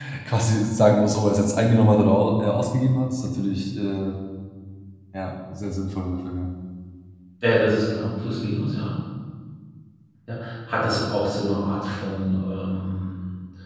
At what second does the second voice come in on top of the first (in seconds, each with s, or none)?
none